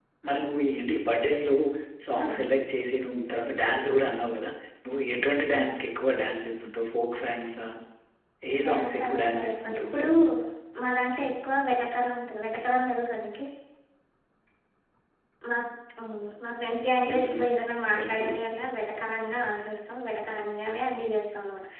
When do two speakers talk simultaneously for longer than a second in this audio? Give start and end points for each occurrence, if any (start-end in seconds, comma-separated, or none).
8.6-9.9